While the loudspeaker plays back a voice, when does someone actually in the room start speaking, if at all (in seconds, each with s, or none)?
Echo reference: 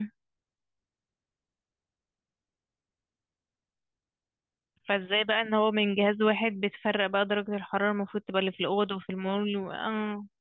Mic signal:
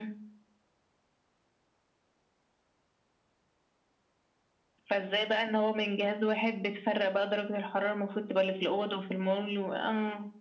none